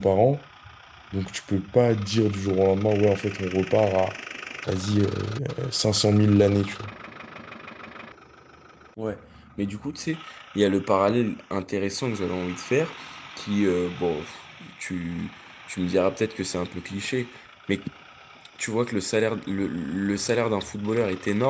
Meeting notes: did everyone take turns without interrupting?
Yes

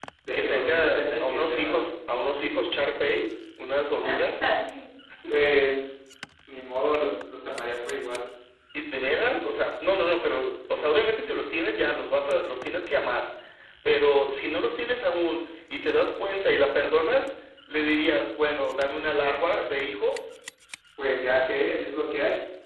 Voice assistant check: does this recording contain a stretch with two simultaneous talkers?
Yes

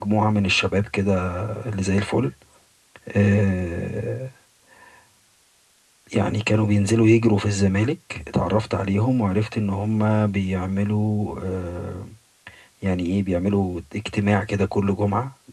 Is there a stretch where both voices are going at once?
No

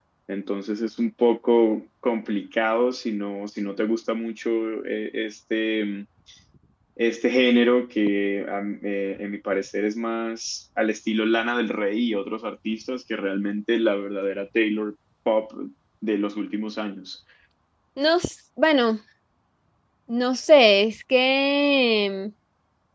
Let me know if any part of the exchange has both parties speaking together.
No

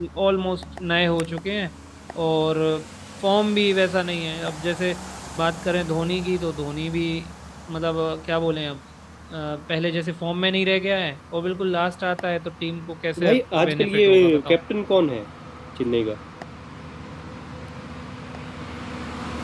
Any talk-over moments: Yes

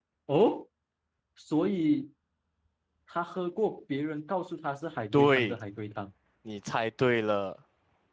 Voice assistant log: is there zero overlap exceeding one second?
Yes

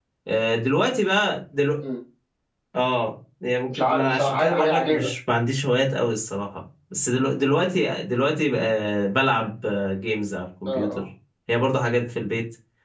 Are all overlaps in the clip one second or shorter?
No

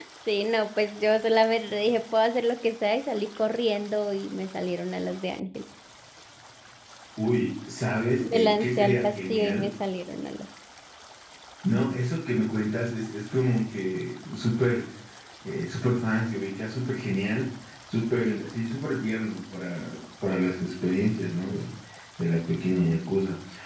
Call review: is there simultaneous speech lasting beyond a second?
Yes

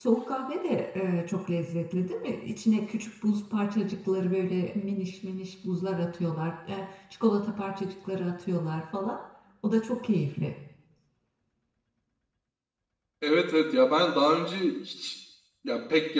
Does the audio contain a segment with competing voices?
No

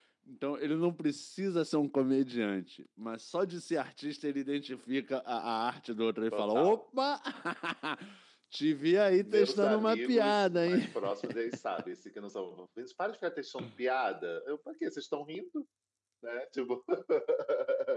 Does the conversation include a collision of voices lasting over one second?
Yes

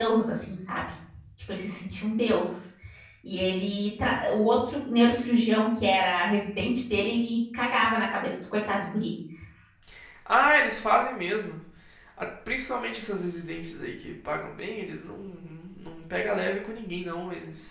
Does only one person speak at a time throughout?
Yes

